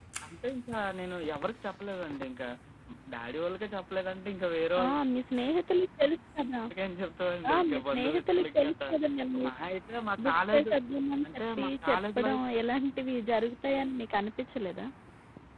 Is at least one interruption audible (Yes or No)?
Yes